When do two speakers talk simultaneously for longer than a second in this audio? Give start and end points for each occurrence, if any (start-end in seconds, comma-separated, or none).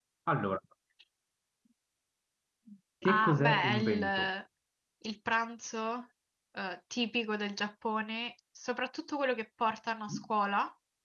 3.0-4.3